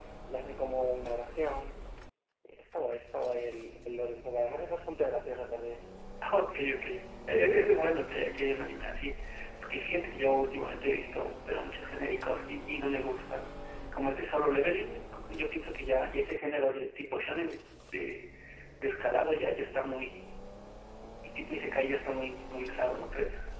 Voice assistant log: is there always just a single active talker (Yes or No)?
Yes